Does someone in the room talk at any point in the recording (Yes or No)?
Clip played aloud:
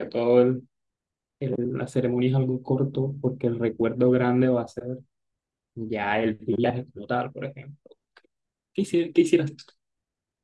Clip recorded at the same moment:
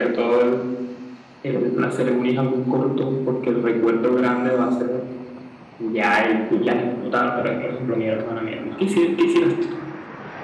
Yes